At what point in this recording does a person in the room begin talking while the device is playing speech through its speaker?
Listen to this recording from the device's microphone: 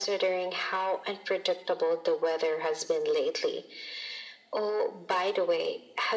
none

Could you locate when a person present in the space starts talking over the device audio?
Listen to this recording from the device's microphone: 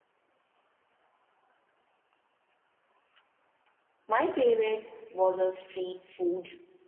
4.0 s

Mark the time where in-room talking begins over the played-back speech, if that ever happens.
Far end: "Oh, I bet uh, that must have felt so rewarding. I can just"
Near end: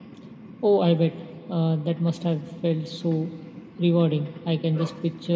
none

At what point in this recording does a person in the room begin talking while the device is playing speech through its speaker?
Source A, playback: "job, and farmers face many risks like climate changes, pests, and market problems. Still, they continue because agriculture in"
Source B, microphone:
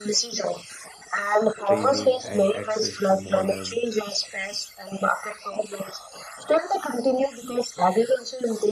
1.6 s

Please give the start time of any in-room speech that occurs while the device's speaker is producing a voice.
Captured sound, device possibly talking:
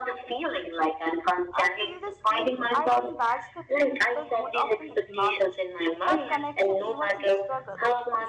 1.5 s

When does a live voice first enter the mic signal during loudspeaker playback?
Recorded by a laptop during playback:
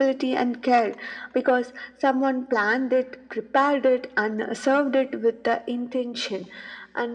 none

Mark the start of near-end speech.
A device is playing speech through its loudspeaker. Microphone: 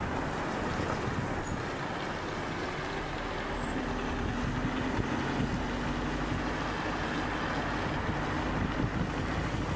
none

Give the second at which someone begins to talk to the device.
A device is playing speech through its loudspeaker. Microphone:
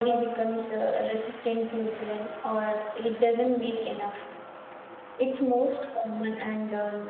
3.4 s

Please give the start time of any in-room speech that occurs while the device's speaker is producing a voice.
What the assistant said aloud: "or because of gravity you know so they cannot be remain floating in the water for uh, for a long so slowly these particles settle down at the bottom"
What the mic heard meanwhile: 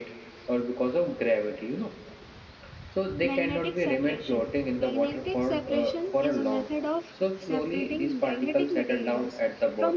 3.2 s

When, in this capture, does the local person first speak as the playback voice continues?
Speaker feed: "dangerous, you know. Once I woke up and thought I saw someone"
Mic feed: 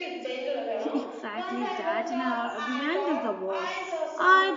0.9 s

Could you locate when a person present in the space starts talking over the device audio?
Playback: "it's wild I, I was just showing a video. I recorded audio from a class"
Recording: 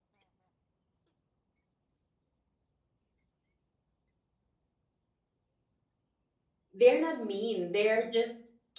6.7 s

